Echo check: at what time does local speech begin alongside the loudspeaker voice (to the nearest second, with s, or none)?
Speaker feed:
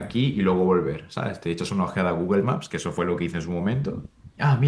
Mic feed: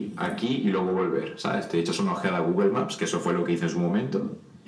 none